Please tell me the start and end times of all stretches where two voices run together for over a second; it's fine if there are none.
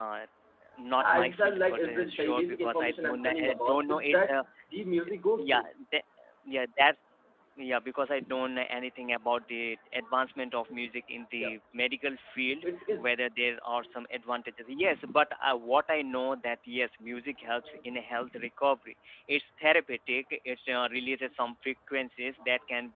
1.0-4.4

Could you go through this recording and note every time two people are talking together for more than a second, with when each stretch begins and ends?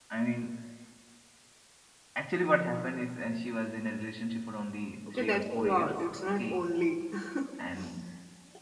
5.1-6.7

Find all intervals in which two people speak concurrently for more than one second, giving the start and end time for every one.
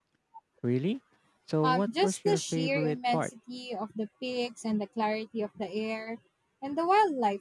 1.6-3.3

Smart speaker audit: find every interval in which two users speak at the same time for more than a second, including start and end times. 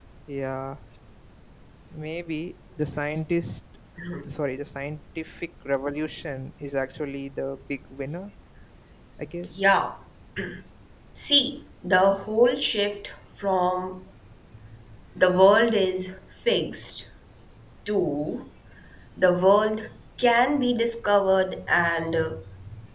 none

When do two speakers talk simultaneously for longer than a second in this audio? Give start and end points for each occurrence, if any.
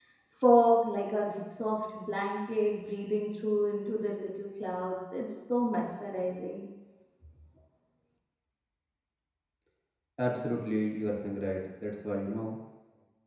none

